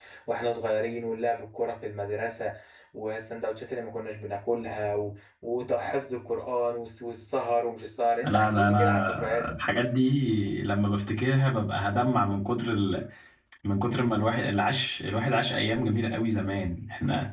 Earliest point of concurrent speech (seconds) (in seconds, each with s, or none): 8.2 s